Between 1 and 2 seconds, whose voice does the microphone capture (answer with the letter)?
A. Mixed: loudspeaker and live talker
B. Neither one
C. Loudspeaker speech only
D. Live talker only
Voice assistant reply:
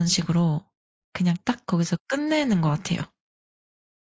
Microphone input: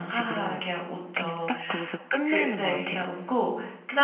A